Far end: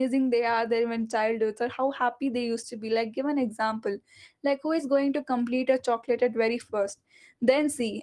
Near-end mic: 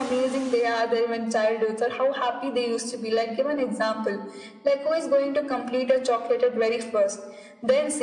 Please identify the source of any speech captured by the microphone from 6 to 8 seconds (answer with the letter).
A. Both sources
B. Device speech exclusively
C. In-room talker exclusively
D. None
B